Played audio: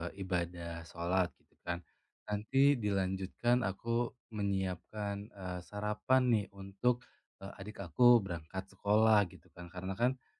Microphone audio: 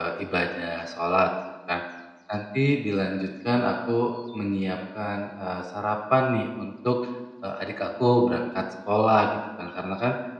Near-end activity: none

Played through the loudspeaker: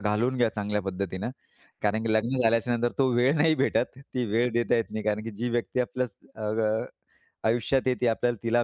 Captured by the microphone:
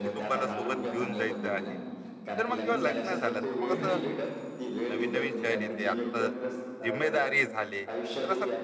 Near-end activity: present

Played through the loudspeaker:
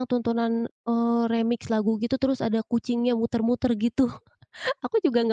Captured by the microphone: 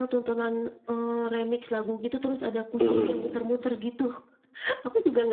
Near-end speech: present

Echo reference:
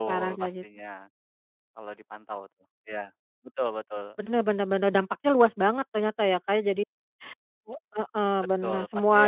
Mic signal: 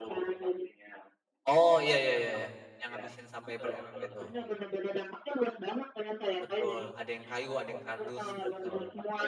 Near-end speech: present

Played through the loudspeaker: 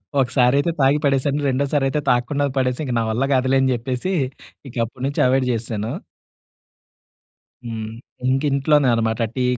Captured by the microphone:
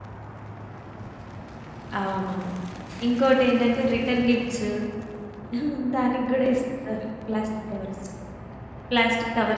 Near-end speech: present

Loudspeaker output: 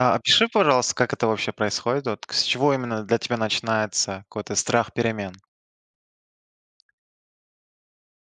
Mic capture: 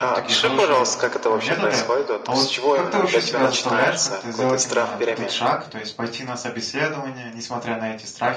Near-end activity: present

